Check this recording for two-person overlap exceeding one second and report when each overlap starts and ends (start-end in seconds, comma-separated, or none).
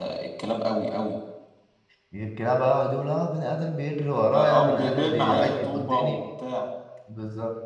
4.3-6.2